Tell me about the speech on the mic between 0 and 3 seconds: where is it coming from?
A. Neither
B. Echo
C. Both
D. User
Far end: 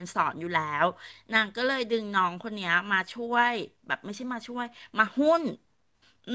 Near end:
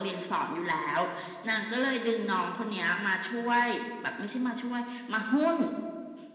B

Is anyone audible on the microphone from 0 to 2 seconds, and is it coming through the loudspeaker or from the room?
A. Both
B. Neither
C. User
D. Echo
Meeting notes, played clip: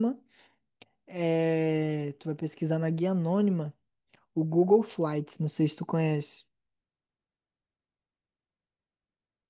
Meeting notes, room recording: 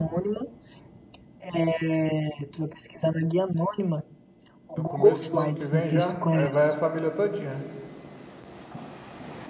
D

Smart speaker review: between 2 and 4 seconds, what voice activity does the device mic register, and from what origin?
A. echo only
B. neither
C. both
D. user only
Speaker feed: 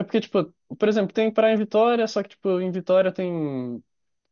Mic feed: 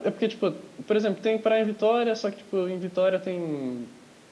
A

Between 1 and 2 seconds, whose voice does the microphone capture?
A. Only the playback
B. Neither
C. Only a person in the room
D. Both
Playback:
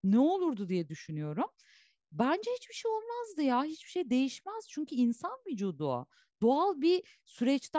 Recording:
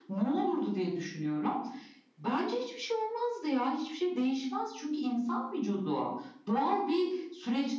A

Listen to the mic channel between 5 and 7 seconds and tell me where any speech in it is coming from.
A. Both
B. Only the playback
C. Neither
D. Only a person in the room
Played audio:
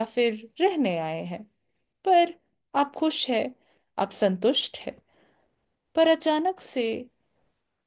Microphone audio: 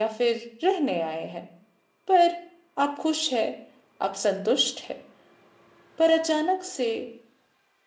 B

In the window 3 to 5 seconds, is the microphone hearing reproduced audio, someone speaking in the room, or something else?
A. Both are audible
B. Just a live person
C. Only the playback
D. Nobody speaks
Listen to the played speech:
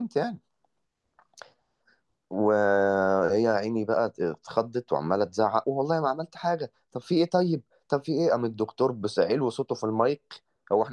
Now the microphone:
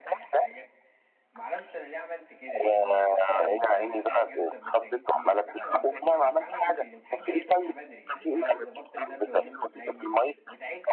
A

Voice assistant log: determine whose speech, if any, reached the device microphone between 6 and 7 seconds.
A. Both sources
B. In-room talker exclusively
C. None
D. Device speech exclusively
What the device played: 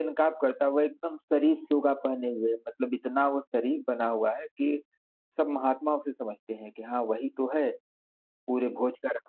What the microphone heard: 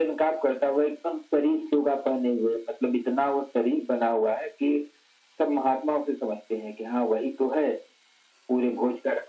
D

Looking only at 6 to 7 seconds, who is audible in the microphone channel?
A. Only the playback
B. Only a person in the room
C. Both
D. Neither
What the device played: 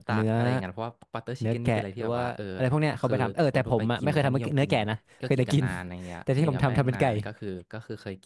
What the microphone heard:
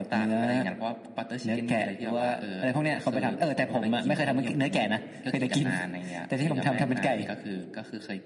A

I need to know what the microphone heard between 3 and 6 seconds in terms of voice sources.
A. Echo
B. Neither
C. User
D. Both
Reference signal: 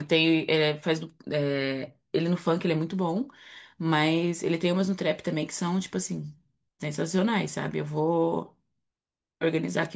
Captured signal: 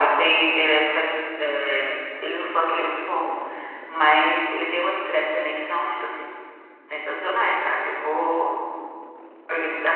A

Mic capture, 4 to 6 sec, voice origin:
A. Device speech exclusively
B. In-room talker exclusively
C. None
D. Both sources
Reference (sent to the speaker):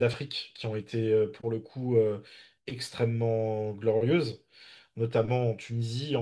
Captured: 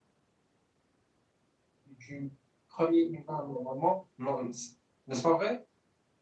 B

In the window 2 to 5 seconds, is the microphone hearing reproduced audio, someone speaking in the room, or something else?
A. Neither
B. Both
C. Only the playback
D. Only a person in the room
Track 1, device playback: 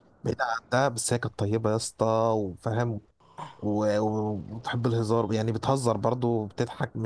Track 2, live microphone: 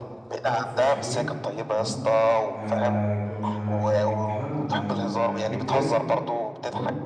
B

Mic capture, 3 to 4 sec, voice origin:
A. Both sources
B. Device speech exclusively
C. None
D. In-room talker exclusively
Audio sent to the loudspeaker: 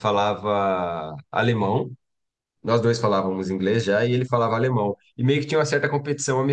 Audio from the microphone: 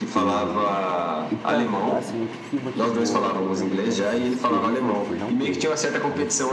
A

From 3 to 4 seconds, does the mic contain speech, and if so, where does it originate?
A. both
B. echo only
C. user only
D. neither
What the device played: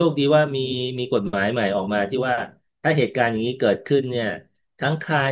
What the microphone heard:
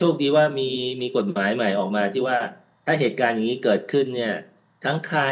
B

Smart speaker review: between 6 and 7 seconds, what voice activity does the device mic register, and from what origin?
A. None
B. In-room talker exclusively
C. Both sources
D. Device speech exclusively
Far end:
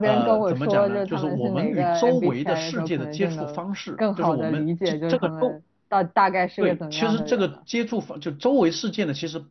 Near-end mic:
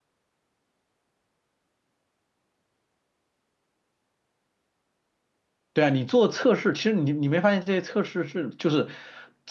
B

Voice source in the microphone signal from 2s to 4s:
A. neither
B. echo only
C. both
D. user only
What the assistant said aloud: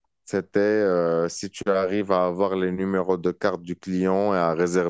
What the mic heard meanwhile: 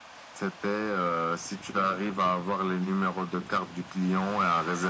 B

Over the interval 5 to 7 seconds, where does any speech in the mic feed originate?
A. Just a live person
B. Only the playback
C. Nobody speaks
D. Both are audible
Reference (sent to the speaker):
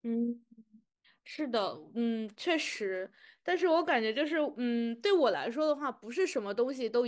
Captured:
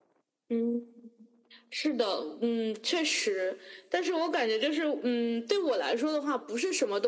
B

